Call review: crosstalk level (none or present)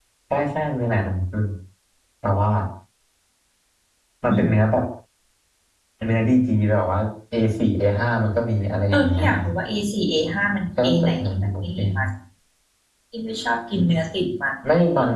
present